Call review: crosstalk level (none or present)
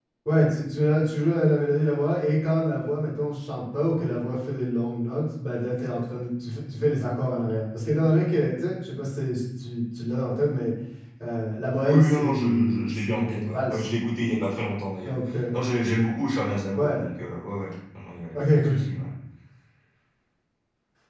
present